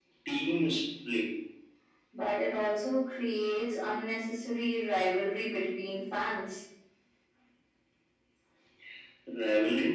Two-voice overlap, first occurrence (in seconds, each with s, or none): none